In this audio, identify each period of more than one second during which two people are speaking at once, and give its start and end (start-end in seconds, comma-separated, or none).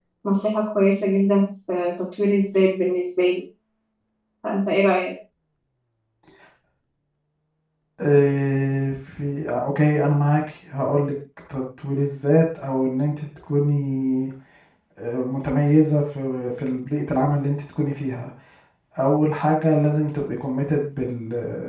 none